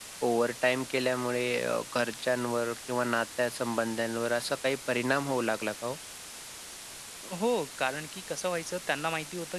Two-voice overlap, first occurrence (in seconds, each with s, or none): none